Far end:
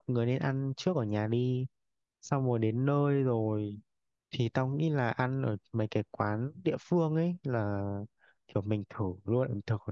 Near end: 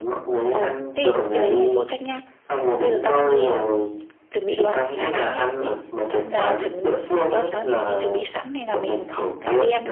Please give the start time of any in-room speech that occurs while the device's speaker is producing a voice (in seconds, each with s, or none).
0.5 s